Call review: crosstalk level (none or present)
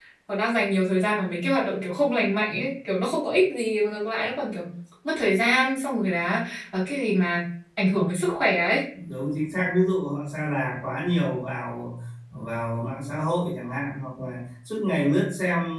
none